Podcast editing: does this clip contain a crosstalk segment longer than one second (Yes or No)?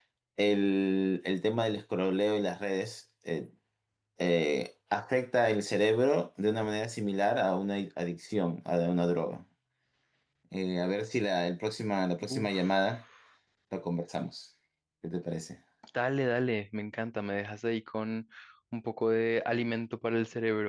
No